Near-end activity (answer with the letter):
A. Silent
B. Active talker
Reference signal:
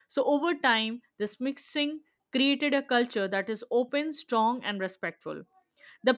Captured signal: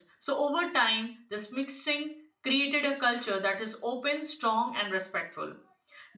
A